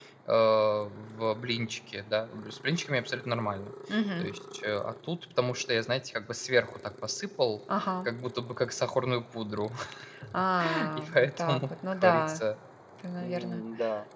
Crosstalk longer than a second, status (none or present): present